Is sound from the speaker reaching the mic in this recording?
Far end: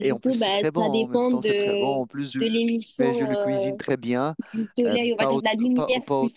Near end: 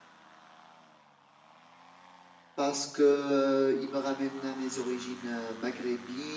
No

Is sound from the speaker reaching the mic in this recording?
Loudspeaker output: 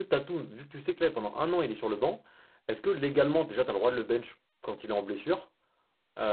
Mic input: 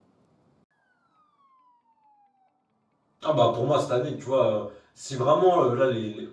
No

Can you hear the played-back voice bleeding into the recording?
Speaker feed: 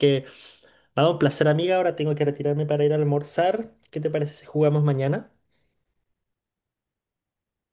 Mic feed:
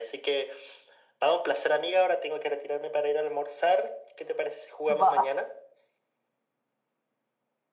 Yes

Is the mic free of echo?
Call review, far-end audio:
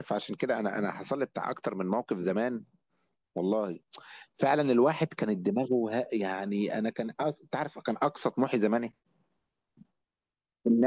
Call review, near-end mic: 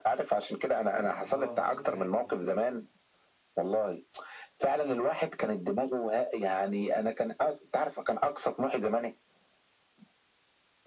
No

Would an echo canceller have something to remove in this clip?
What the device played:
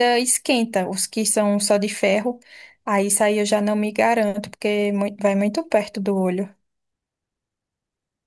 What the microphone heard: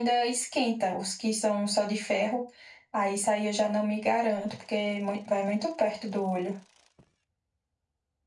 Yes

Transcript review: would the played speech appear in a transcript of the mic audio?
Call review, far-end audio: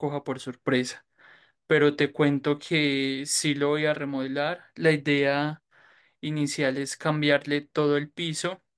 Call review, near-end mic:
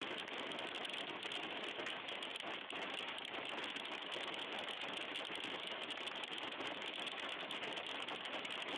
No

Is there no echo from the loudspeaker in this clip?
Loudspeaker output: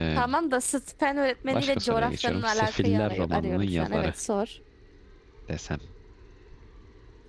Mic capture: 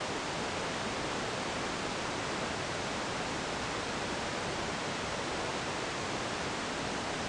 Yes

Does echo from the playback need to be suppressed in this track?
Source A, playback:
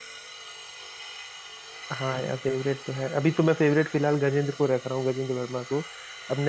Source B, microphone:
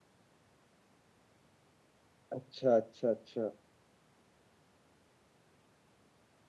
No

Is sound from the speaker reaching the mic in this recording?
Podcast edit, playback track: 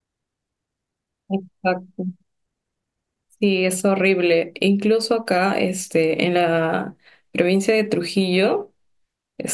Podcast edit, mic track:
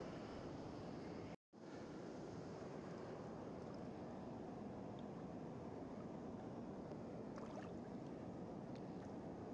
No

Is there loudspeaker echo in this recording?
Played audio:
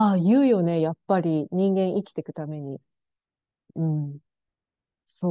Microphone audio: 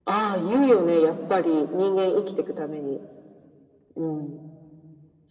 Yes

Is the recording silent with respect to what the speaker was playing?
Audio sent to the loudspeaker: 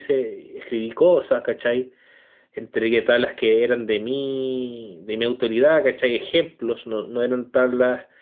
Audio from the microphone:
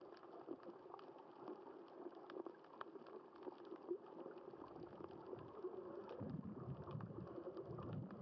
Yes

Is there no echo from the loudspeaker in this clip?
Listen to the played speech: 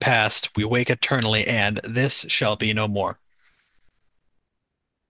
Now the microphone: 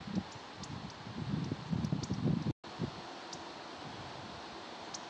Yes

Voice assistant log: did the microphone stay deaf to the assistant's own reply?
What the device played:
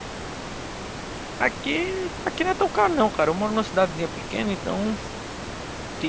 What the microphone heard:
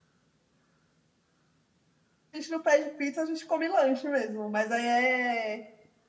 Yes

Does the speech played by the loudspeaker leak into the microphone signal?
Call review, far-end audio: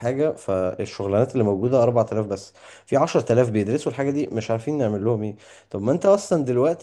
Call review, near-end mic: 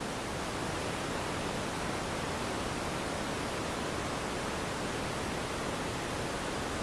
No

